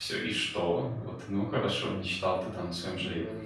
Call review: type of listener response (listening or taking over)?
listening